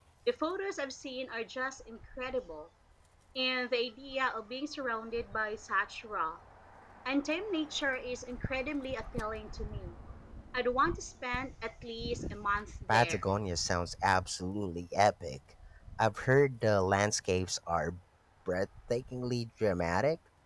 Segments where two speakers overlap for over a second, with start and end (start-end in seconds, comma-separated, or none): none